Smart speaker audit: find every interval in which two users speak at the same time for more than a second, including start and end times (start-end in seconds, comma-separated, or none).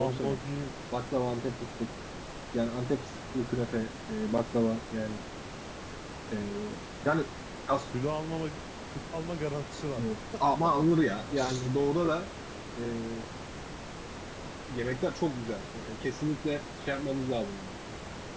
none